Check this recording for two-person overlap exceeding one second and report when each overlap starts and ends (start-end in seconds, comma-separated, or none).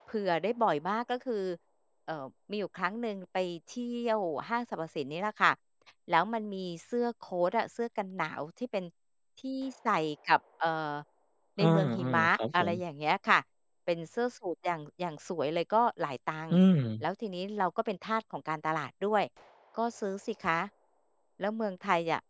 11.6-12.8